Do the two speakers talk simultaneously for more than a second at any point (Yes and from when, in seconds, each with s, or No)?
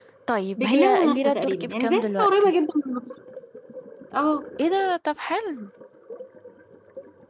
Yes, from 0.6 s